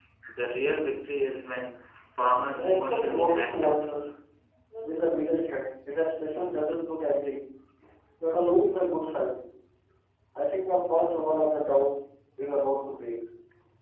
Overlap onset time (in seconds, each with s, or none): 2.5 s